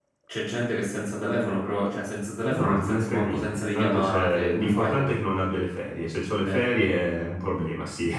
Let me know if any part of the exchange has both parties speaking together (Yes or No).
Yes